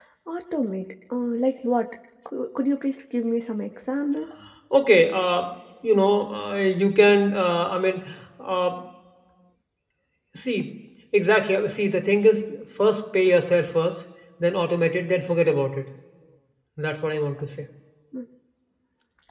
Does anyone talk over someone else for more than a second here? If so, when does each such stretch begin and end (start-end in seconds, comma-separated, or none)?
none